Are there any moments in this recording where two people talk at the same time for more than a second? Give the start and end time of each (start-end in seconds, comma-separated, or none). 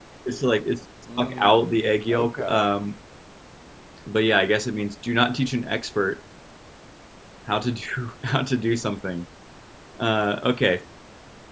1.2-2.7